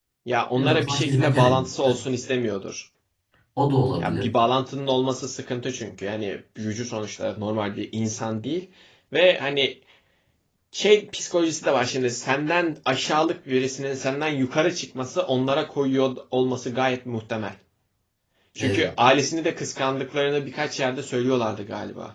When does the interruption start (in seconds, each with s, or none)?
0.6 s